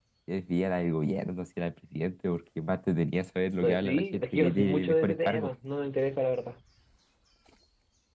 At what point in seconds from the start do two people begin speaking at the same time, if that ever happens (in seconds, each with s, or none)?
3.6 s